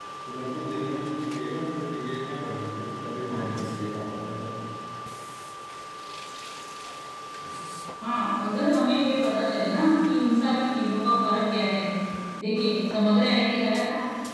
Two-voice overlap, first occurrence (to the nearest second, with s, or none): none